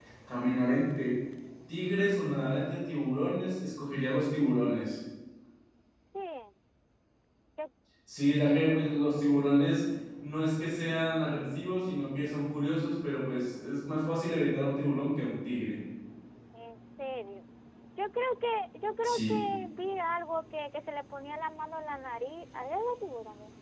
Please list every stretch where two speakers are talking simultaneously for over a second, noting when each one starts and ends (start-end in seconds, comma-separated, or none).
none